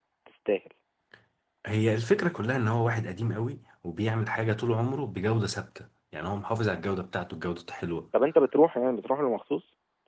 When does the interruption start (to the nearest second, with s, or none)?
none